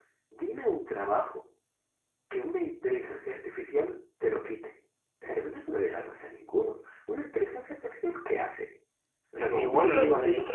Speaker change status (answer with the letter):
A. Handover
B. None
A